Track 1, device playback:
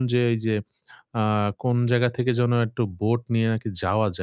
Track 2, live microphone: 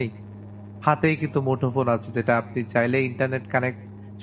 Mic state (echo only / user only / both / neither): user only